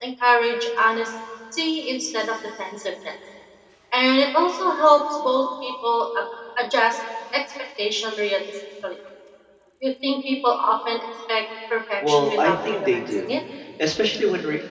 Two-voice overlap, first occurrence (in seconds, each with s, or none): 12.0 s